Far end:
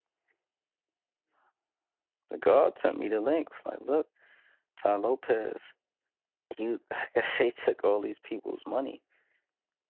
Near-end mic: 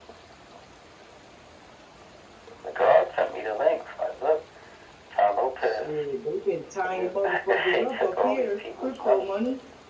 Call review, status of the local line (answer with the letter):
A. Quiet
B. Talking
B